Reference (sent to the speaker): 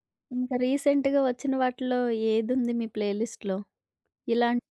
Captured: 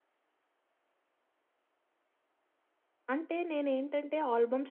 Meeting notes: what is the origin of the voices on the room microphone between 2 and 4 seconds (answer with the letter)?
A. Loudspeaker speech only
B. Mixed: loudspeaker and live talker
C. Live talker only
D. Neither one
C